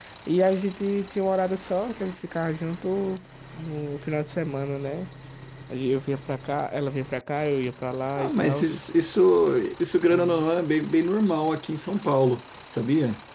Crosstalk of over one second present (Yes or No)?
No